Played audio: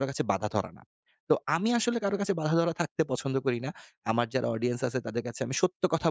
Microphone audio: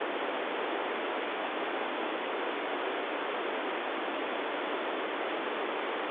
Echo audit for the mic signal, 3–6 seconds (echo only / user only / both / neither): neither